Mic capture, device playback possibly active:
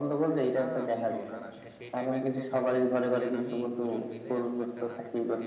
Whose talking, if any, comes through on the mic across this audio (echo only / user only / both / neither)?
both